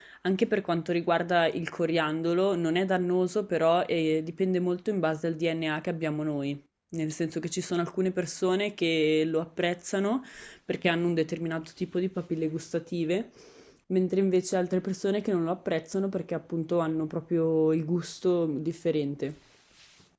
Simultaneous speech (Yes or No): No